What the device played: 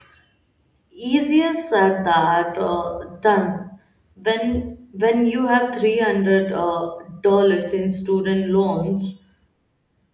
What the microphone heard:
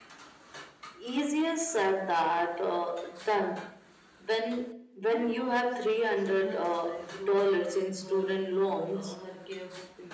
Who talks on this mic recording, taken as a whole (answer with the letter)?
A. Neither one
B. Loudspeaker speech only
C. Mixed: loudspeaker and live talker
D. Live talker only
C